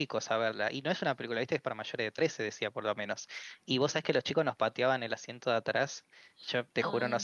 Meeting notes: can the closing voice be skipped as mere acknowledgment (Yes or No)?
Yes